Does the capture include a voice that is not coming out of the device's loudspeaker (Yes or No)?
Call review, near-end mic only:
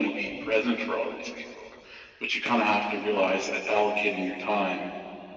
No